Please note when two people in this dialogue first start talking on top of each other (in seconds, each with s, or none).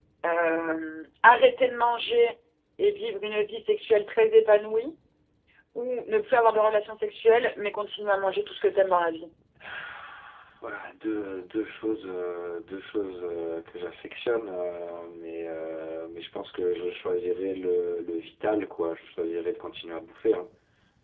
none